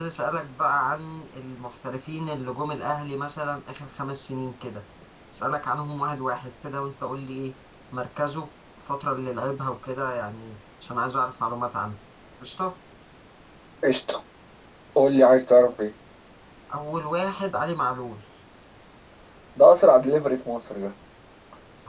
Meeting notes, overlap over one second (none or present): none